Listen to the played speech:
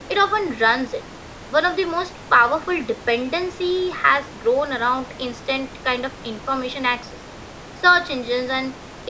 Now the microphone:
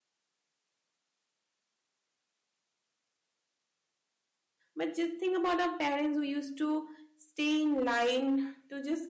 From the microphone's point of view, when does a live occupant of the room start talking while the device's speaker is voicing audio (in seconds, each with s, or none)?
4.7 s